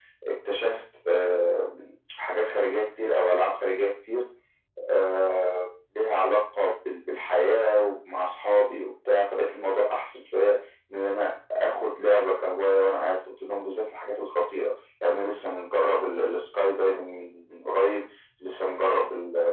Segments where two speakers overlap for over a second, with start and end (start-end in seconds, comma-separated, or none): none